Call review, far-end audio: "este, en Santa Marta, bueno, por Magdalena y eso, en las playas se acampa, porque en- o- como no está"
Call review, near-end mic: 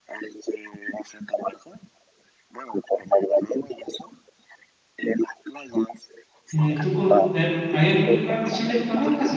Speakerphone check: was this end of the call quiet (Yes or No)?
No